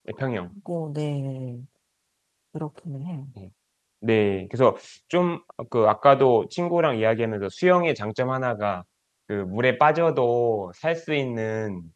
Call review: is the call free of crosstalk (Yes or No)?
Yes